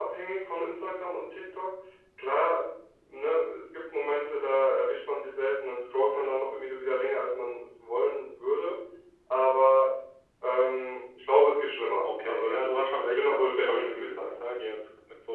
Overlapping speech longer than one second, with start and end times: 12.0-14.4

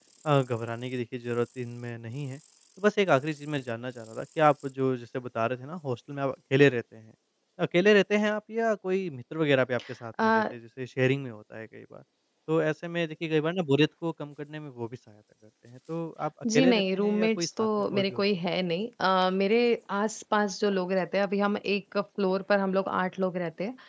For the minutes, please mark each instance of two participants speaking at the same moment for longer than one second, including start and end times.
16.6-18.2

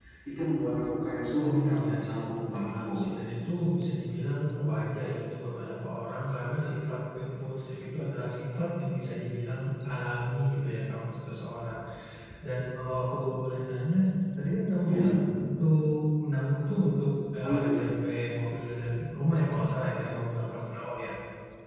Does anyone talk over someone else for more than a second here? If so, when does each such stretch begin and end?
1.4-3.1

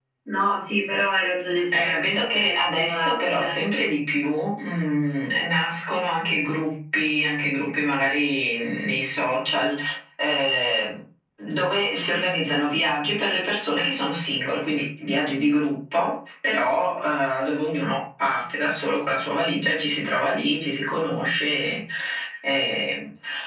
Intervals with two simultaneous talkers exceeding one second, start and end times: 1.7-3.5

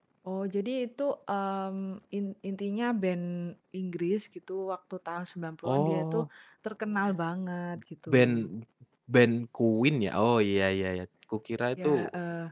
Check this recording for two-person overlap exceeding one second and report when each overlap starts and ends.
none

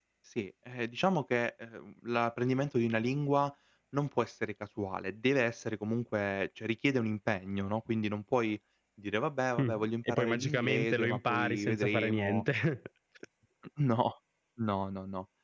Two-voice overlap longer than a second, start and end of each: 9.6-12.4

